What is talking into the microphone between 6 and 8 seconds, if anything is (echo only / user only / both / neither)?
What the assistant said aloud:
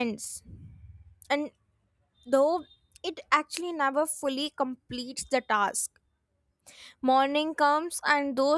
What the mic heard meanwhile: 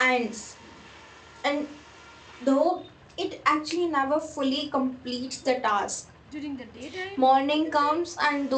both